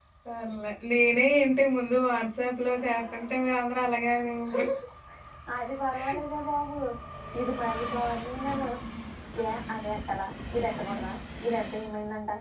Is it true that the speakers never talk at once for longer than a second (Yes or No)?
Yes